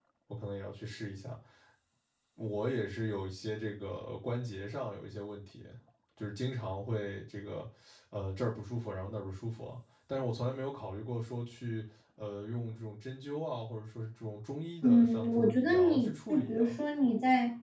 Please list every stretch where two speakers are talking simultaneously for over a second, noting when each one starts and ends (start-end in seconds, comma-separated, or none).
14.8-16.8